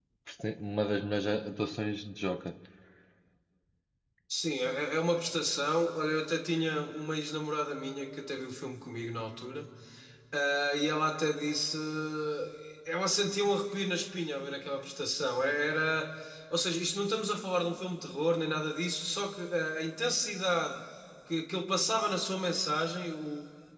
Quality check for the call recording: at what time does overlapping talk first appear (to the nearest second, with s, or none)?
none